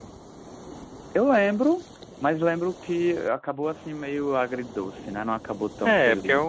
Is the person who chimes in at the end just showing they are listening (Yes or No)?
No